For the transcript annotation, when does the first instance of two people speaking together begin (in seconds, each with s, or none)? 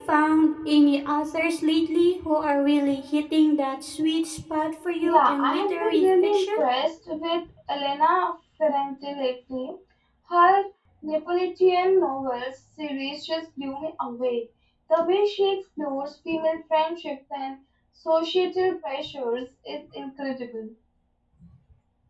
5.0 s